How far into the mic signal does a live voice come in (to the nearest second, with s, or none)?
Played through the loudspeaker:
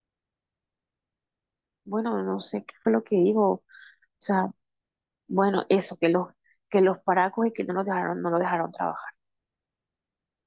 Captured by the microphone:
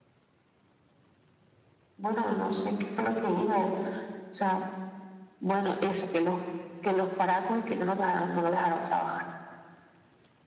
none